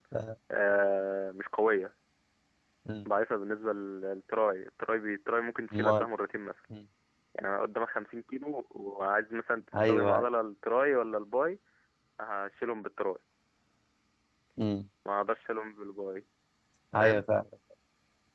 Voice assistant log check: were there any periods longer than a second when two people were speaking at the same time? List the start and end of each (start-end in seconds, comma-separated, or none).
none